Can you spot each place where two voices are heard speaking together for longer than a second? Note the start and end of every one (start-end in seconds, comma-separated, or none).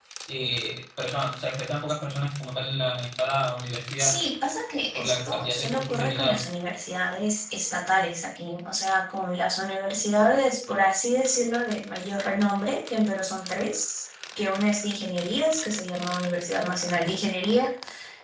5.0-6.4